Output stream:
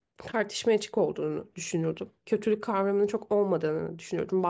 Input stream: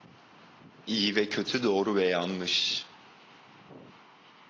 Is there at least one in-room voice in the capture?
Yes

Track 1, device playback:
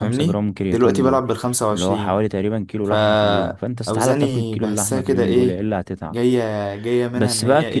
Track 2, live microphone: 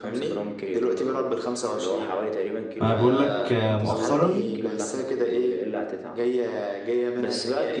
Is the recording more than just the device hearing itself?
Yes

